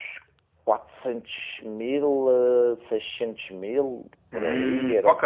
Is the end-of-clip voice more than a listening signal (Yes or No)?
Yes